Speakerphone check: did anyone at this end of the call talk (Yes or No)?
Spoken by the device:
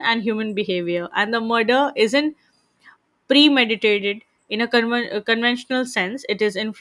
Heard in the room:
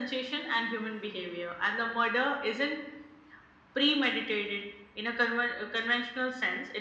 No